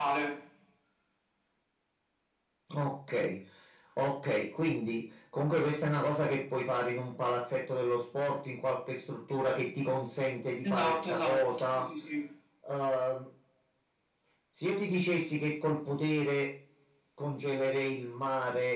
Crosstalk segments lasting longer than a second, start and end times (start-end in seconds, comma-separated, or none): 10.6-11.8